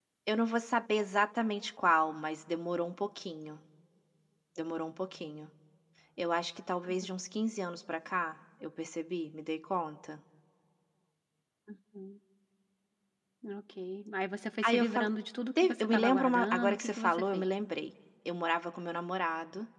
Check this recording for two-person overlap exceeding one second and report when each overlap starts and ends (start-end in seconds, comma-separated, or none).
15.8-17.5